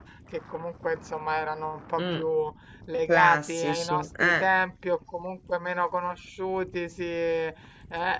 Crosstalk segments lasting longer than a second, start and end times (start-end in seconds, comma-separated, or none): 3.1-4.4